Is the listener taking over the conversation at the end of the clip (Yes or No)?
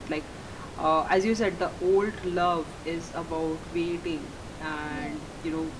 No